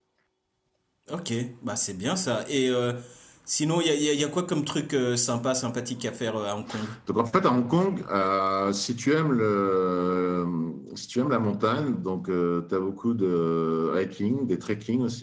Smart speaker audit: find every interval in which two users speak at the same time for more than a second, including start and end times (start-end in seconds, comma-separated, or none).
none